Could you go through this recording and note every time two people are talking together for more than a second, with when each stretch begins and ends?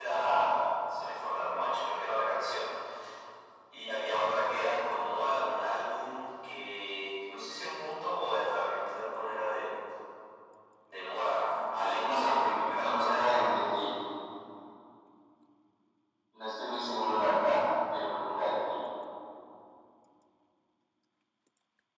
11.5-13.6

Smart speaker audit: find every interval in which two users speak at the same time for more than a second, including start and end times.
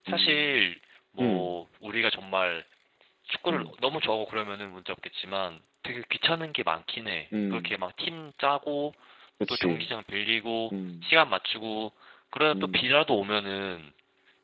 none

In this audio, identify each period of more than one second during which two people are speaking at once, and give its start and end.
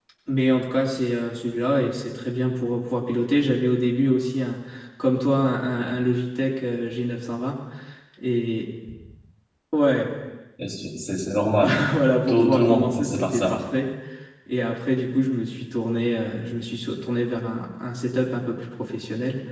12.3-13.5

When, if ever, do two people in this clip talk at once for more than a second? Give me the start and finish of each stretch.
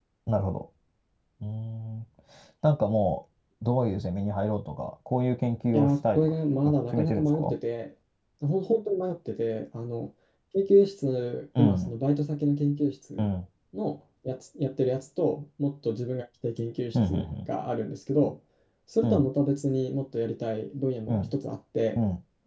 5.7-7.5

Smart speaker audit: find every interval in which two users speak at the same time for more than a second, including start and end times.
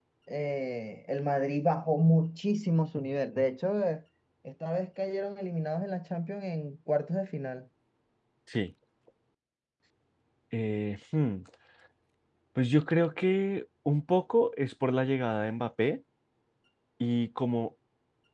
none

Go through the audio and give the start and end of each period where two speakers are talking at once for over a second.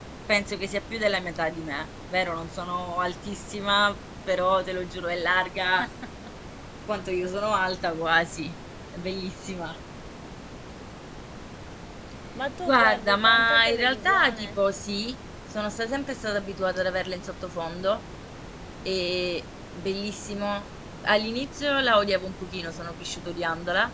12.7-14.5

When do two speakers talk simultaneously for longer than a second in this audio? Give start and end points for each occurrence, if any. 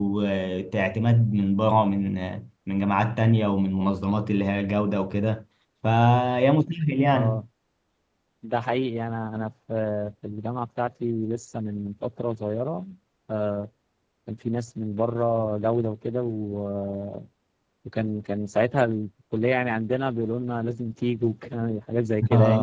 none

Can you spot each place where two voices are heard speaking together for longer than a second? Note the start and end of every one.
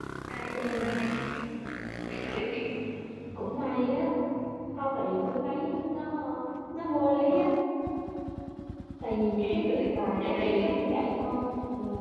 9.4-10.7

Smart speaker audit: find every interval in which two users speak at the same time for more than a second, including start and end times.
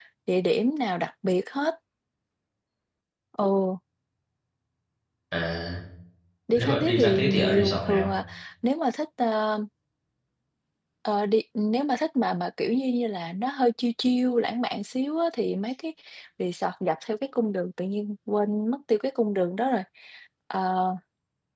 6.5-8.1

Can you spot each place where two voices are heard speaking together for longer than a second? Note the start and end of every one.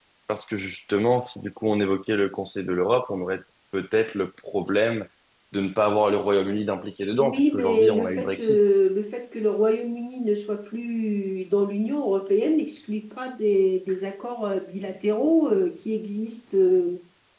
7.2-8.6

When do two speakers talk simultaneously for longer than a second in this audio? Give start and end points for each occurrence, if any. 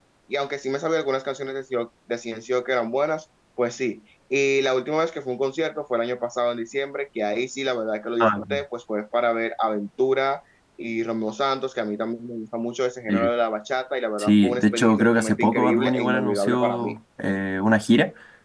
14.2-16.9

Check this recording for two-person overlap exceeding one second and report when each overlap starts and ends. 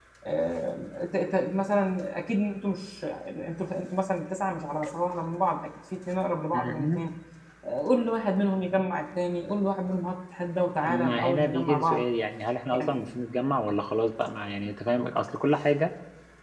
10.8-12.0

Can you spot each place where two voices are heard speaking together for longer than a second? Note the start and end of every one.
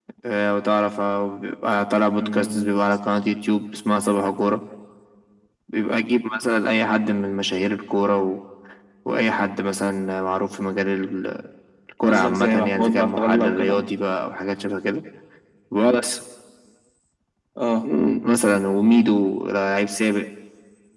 12.1-13.8

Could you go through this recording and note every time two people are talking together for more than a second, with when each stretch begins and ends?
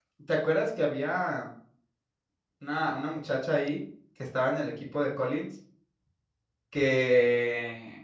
none

